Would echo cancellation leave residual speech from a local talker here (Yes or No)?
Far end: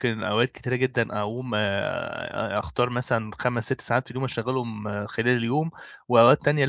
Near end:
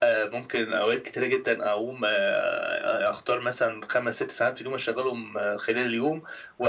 No